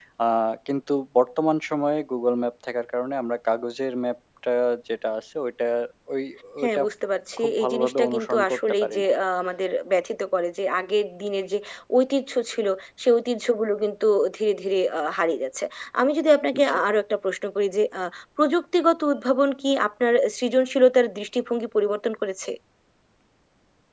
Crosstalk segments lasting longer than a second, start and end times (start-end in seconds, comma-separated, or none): 7.4-9.1